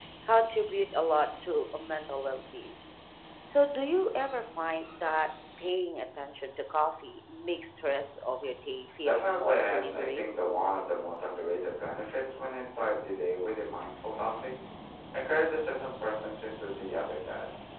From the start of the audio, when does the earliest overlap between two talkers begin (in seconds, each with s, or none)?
9.0 s